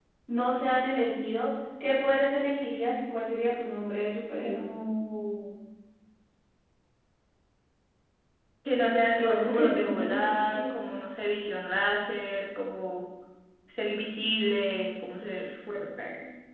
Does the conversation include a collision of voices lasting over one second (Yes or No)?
Yes